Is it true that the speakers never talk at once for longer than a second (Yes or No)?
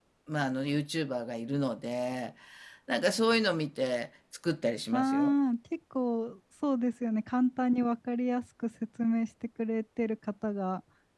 Yes